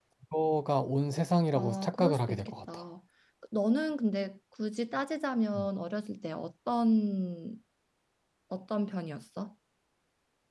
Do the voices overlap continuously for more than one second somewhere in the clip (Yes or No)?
Yes